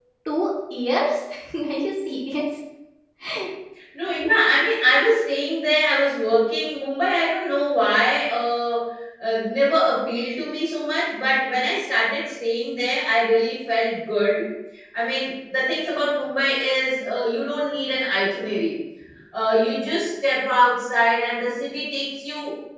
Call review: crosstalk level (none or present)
none